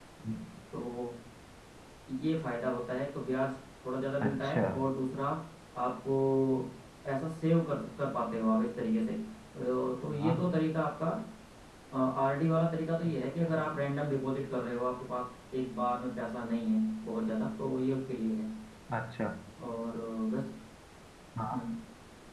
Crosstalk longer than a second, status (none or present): none